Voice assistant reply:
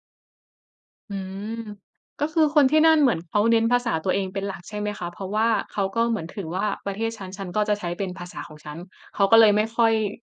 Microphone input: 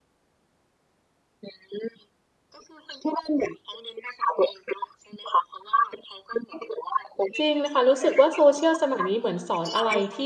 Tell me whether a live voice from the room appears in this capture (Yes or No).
Yes